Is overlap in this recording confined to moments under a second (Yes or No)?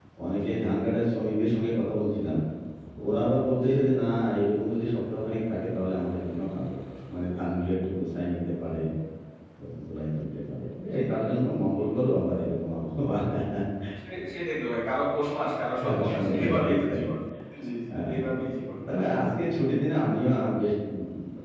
No